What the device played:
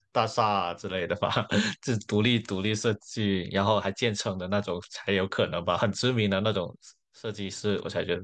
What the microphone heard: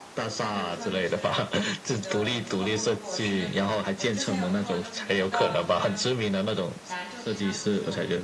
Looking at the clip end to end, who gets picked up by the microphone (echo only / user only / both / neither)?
both